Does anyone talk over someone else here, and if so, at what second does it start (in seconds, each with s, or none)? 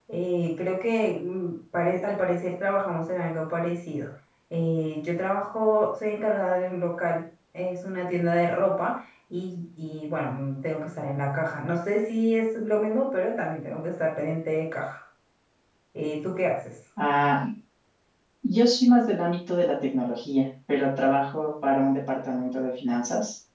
none